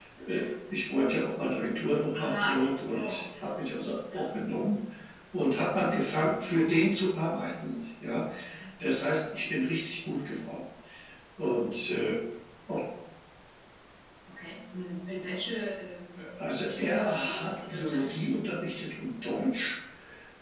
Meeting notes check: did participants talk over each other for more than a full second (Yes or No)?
Yes